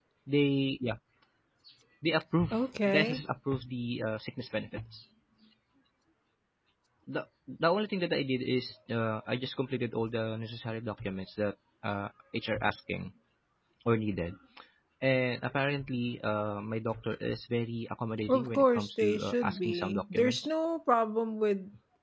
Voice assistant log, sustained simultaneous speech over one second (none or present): present